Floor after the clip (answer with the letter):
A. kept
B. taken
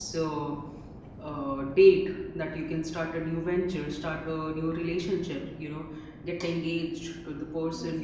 A